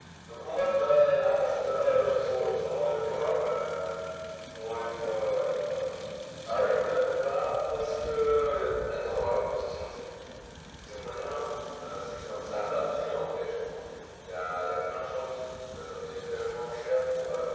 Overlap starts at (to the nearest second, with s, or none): 1 s